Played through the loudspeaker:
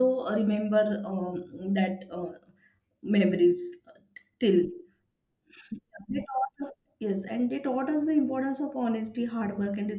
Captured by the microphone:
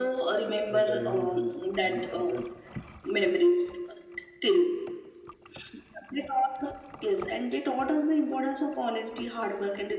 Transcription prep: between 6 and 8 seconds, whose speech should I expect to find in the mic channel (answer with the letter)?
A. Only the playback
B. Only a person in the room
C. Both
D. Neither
A